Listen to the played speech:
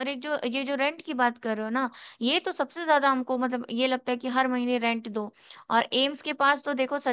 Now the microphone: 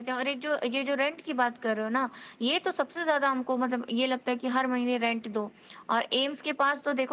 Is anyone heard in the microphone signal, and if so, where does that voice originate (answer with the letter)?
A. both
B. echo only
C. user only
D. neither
B